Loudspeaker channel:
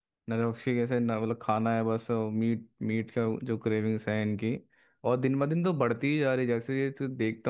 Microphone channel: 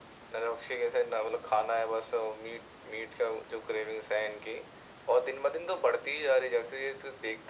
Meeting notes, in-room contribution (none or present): none